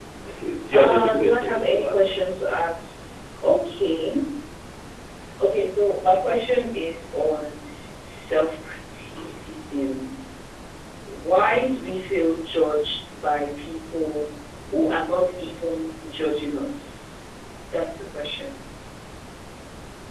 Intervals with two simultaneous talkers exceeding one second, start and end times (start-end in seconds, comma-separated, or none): 0.7-2.2